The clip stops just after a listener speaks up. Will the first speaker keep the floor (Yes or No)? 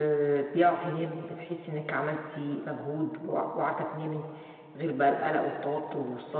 Yes